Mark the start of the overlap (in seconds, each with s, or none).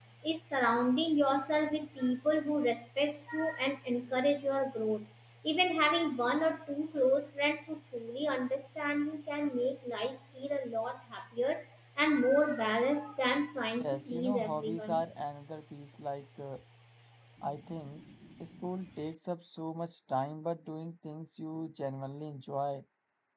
13.8 s